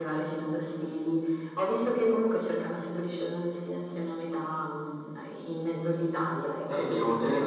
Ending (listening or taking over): taking over